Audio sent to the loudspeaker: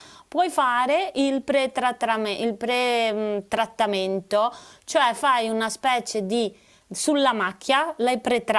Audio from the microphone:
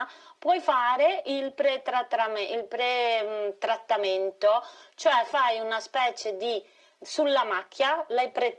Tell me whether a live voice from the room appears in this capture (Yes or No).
No